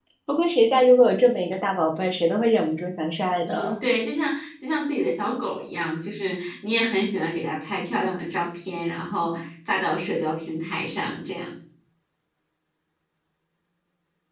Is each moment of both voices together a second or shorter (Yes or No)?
Yes